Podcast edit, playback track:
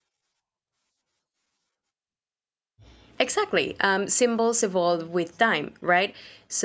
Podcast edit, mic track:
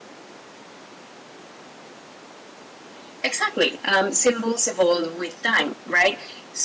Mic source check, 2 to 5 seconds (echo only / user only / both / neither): echo only